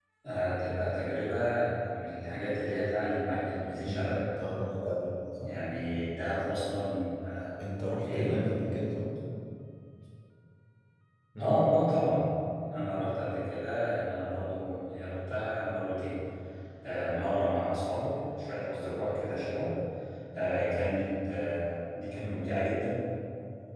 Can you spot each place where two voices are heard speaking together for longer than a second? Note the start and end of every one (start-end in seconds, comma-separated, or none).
none